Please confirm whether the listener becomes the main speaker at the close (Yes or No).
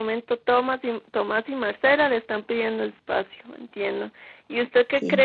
No